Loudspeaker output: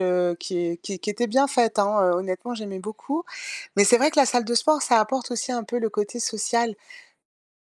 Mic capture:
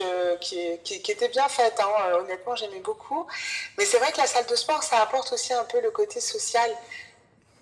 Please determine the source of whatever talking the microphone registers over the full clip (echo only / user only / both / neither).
echo only